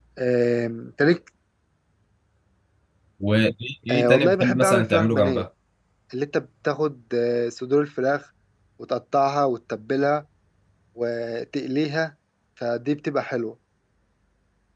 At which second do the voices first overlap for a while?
3.9 s

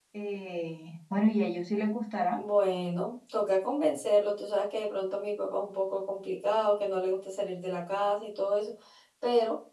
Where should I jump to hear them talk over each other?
none

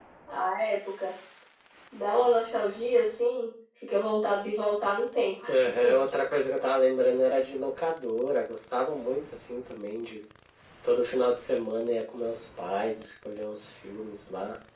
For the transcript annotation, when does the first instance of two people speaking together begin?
none

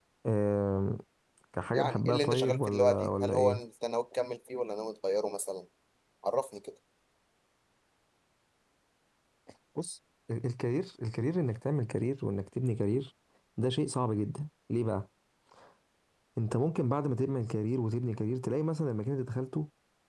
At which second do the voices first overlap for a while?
1.7 s

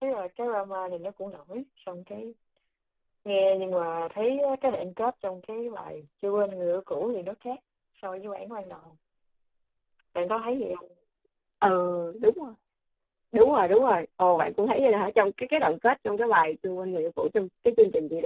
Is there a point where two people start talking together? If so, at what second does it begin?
none

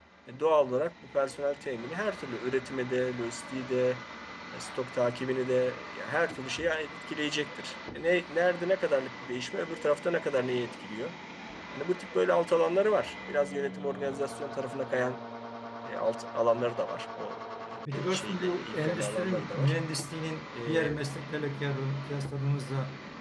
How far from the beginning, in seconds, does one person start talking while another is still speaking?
17.9 s

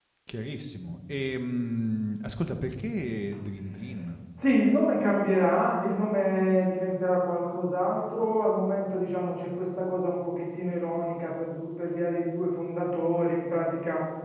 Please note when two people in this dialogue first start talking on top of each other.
none

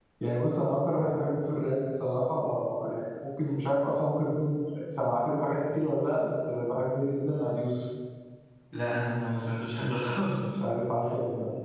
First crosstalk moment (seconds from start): none

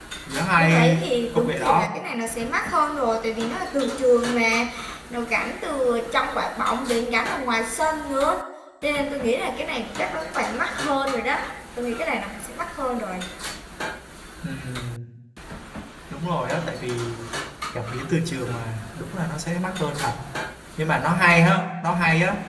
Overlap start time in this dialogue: 0.6 s

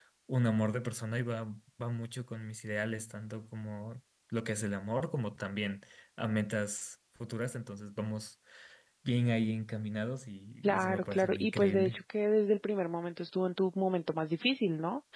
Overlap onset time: 10.6 s

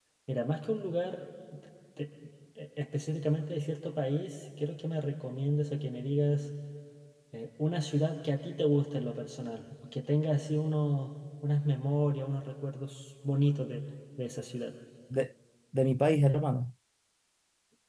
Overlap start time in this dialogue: none

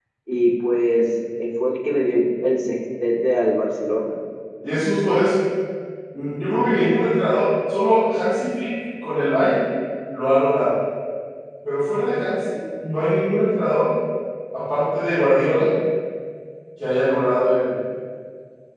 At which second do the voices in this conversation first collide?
none

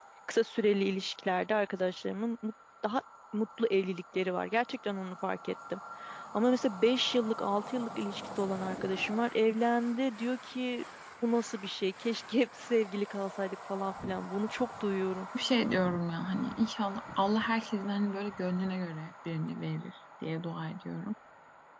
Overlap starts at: none

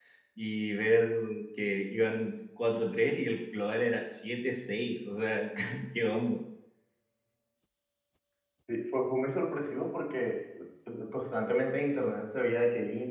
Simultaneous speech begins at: none

